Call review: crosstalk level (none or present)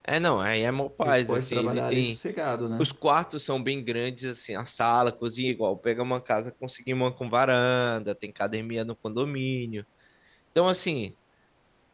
present